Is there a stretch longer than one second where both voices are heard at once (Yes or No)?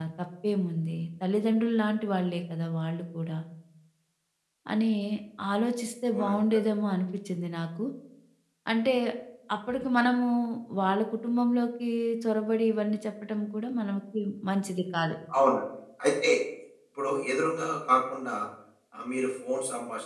No